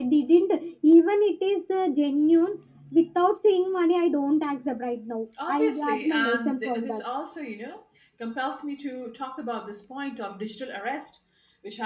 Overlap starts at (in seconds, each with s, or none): 5.4 s